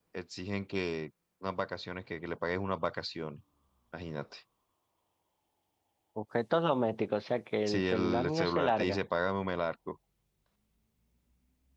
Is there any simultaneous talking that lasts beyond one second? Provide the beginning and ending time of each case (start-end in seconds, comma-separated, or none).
7.7-9.0